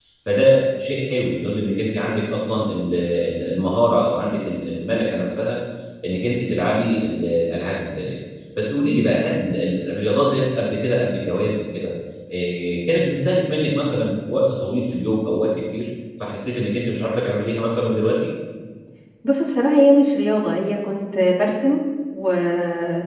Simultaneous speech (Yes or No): No